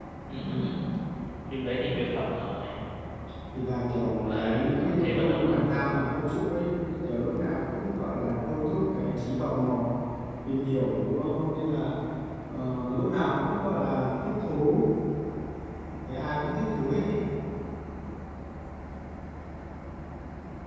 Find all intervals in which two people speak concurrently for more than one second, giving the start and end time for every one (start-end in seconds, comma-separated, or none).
4.1-5.5